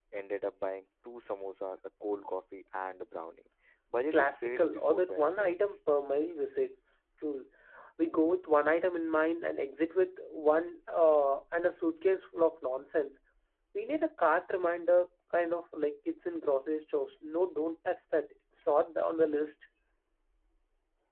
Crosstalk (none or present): present